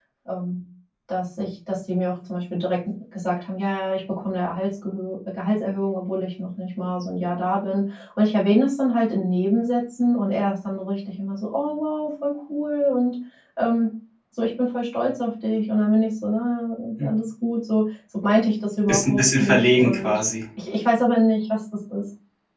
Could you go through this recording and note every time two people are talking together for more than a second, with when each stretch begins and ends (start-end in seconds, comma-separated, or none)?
18.9-20.2